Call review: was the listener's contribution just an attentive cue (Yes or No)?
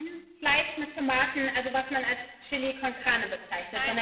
Yes